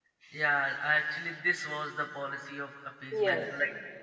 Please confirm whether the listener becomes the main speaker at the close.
No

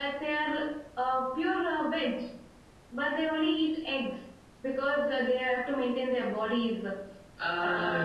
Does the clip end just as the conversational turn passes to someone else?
Yes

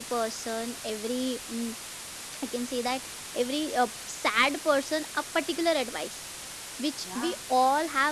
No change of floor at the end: Yes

